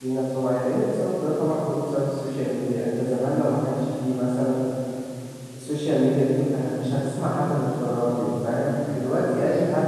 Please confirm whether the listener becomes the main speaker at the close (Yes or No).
No